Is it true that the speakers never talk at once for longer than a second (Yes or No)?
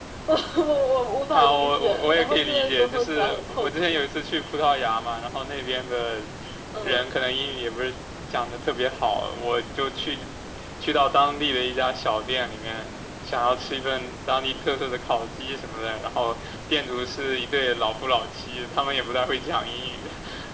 No